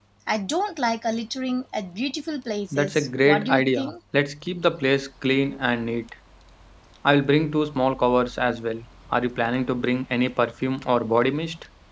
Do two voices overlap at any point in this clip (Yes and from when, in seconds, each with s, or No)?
Yes, from 2.7 s